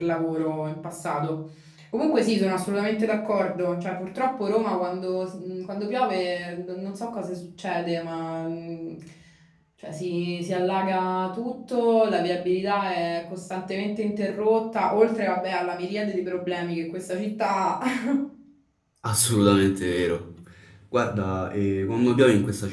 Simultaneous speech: No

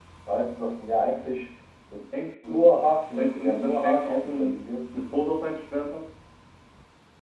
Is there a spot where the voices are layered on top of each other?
Yes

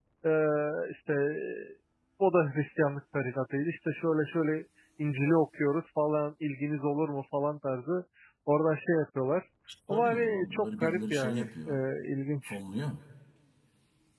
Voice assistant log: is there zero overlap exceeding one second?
No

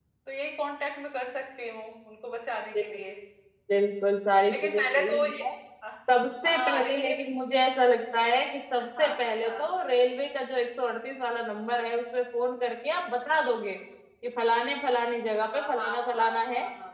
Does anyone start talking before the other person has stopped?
Yes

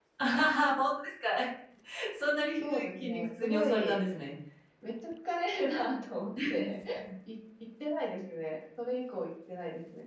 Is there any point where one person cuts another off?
Yes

